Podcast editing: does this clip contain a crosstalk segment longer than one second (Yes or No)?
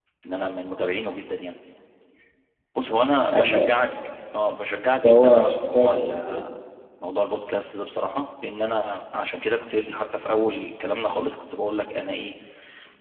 Yes